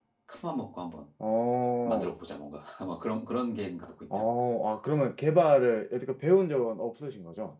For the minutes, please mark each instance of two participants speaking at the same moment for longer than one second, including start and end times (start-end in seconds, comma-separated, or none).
none